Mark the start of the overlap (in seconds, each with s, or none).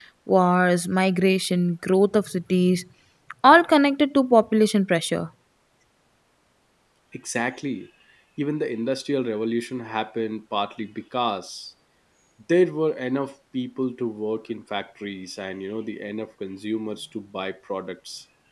none